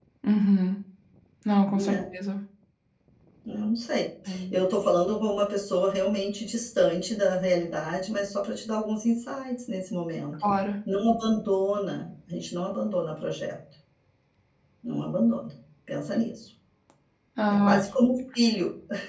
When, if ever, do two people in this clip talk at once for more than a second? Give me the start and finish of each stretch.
none

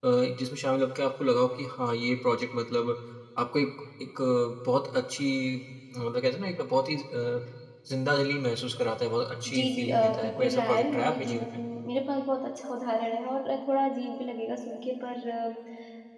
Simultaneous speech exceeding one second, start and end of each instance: 9.6-11.6

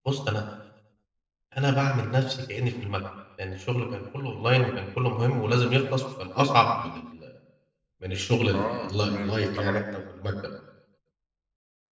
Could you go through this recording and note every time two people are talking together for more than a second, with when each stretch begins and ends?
8.5-9.8

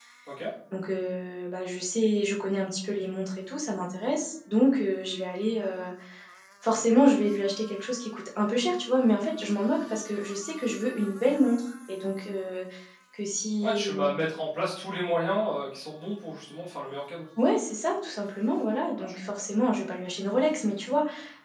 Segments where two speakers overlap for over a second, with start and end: none

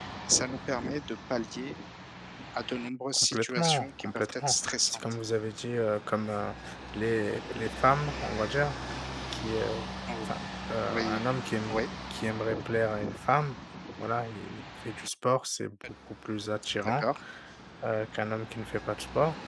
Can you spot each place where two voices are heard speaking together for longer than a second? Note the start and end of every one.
3.1-5.0

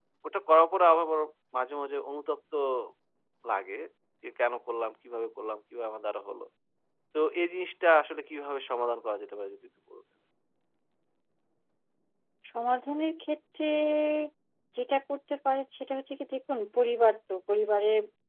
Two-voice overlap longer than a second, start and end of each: none

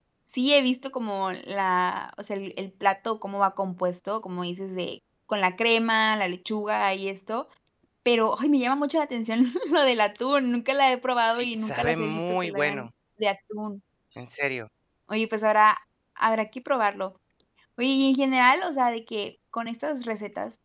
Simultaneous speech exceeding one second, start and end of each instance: 11.3-12.9

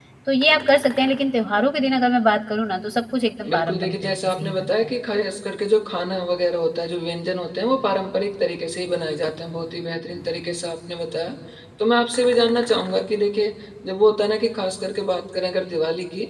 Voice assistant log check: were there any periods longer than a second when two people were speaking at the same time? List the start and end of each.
3.5-4.7

